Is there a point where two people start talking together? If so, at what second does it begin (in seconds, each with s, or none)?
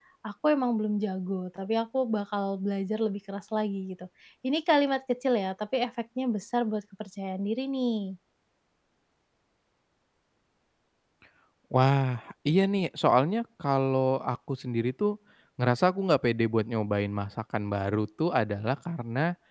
none